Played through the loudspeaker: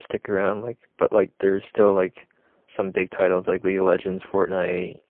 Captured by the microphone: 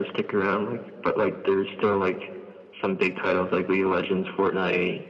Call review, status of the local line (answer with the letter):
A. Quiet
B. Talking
A